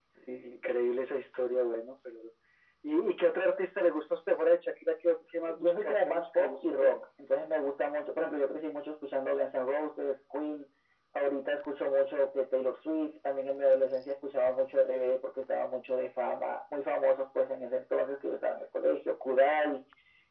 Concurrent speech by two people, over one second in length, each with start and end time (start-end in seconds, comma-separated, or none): 5.6-7.0